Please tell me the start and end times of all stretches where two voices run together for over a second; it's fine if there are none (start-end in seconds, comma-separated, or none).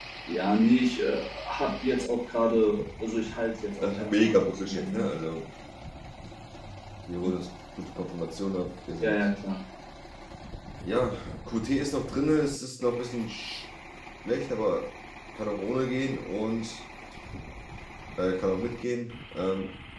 3.8-5.1